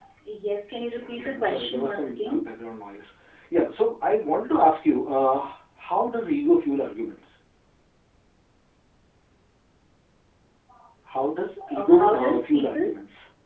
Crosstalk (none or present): present